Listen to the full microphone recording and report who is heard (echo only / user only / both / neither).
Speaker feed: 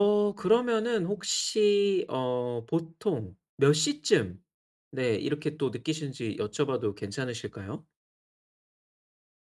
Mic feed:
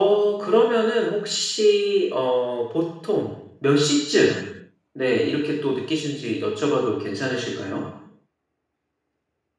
echo only